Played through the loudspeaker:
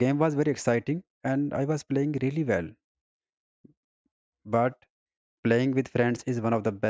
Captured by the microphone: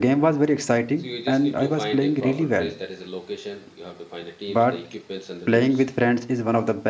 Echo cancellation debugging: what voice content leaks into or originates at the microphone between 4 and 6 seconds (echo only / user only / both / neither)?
both